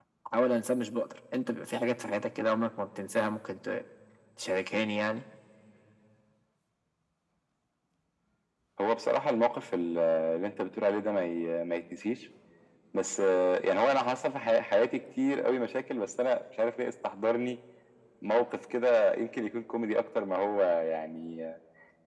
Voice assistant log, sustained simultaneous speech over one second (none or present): none